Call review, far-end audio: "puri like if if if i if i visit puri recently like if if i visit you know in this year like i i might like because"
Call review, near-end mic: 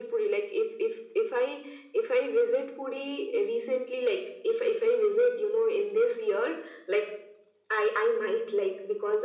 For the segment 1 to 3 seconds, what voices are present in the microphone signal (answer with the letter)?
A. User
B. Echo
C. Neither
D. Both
B